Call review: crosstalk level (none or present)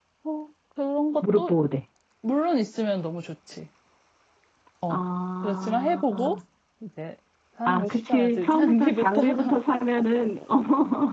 present